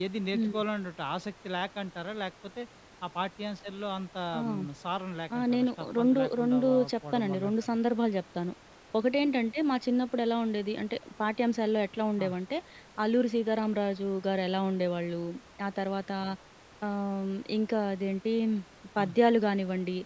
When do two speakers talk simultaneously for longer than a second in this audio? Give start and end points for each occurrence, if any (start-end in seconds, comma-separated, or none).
5.3-7.5